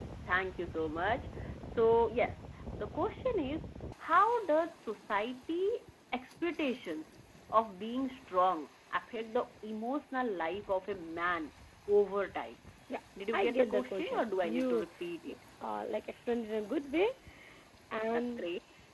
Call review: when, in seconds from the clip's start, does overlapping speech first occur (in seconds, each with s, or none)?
13.3 s